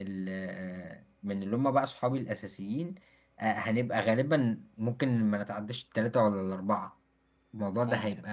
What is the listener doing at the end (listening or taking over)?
listening